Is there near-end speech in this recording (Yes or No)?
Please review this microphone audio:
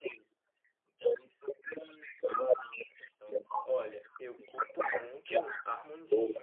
Yes